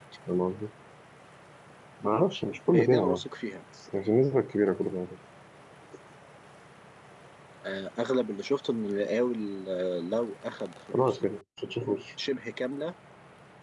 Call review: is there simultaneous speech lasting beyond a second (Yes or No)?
No